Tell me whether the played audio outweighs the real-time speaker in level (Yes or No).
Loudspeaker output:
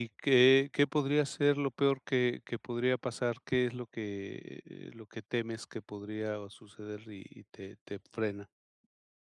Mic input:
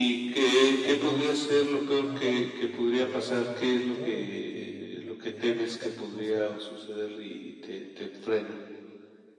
Yes